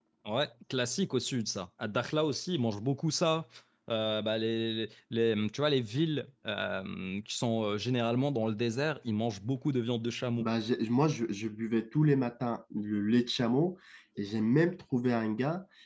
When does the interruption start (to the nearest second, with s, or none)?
none